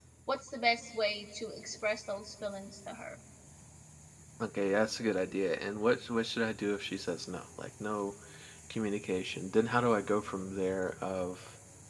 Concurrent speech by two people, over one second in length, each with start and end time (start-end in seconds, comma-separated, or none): none